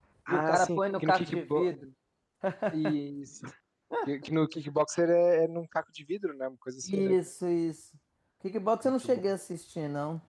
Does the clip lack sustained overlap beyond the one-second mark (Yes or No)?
No